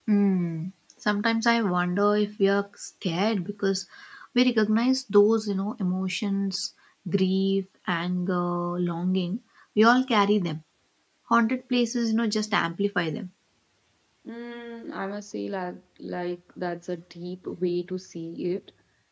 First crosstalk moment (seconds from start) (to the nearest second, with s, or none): none